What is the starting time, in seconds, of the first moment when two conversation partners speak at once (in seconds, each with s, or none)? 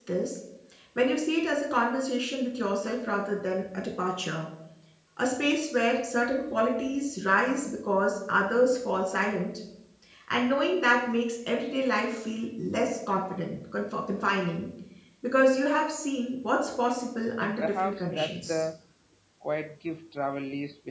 17.4 s